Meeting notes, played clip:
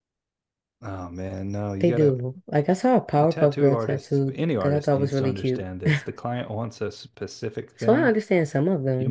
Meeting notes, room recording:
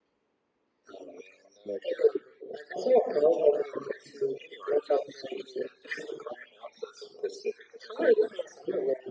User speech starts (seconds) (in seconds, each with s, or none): none